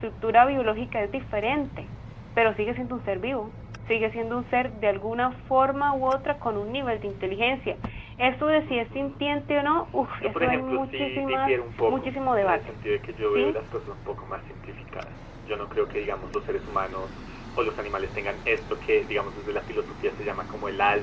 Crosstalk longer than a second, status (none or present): present